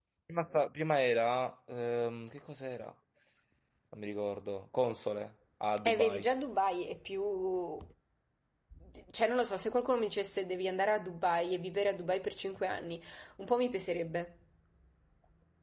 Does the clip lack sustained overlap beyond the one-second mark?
Yes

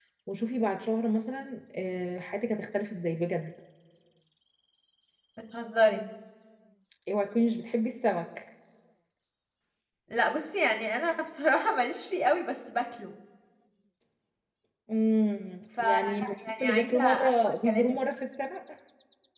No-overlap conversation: No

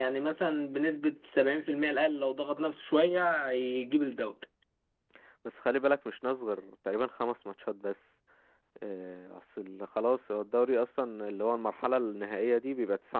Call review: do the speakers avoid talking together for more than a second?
Yes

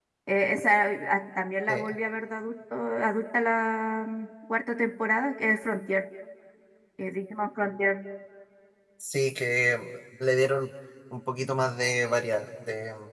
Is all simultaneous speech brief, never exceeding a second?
Yes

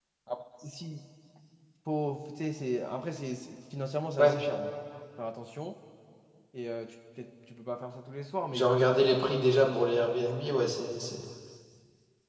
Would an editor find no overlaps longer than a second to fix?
Yes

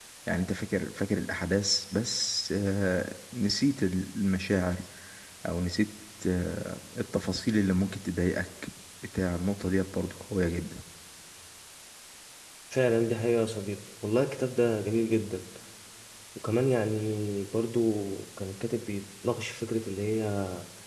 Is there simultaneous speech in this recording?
No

